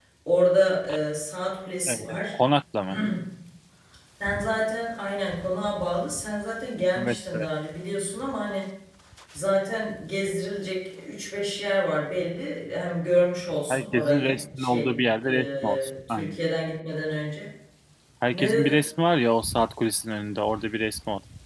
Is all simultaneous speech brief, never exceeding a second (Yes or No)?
No